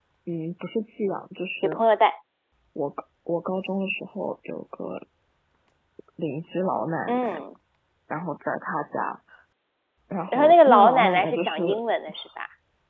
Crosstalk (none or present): present